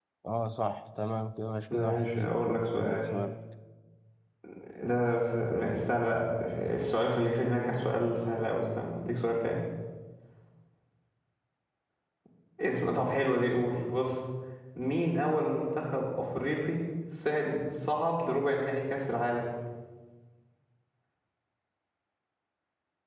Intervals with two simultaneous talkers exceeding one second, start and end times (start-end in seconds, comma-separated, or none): 1.7-3.0